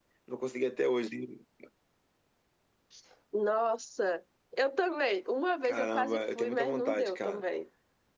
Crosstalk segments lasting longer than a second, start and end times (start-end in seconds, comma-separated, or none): 5.6-7.4